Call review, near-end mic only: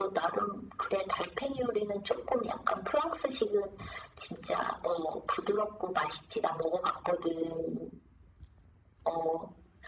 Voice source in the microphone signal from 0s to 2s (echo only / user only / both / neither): echo only